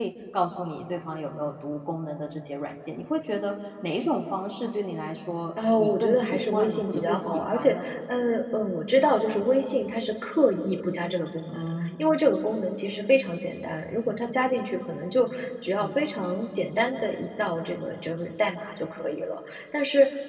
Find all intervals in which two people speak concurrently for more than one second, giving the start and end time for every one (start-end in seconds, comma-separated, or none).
5.8-7.9